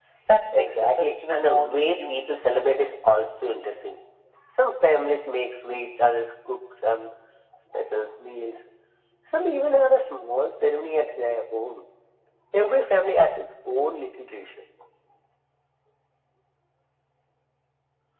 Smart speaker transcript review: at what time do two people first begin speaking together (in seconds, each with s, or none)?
0.5 s